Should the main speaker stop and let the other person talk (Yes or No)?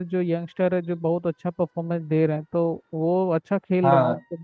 Yes